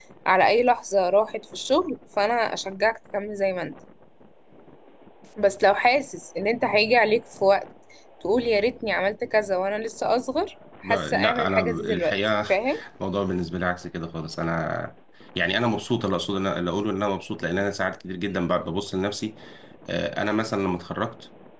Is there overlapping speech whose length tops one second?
Yes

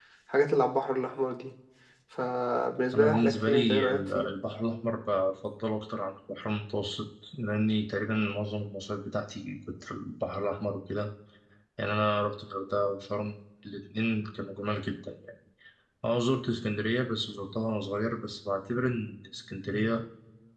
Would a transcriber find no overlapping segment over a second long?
No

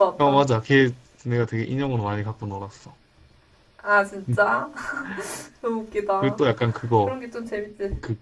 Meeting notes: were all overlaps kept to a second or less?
Yes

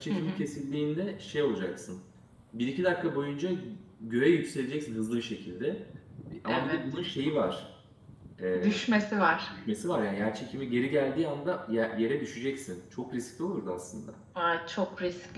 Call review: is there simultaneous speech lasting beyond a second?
No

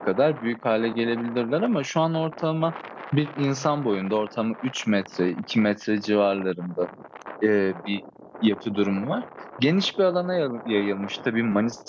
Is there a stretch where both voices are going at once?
No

